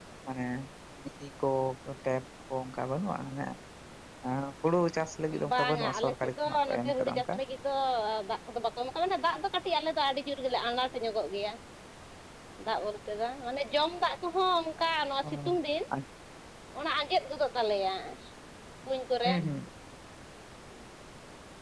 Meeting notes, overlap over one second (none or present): present